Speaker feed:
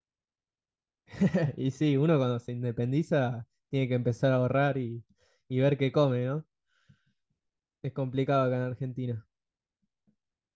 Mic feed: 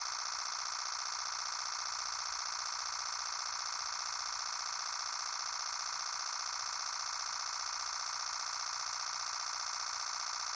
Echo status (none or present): none